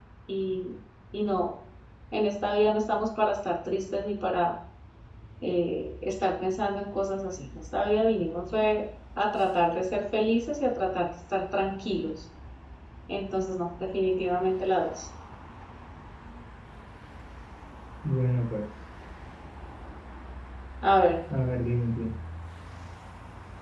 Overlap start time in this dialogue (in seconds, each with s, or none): none